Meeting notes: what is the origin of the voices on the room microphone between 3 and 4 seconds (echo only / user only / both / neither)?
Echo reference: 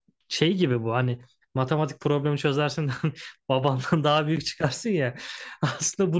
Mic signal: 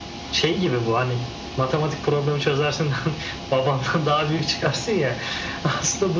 echo only